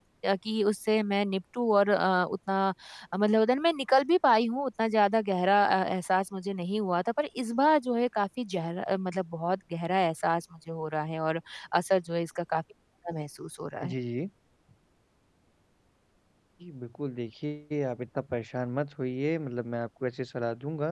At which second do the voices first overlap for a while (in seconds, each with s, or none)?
none